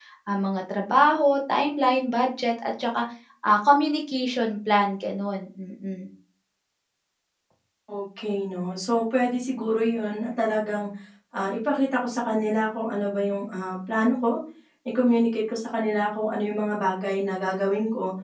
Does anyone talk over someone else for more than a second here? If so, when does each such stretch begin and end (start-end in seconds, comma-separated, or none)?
none